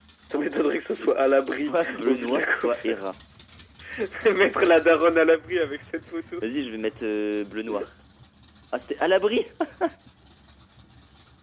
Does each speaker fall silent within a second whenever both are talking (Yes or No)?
No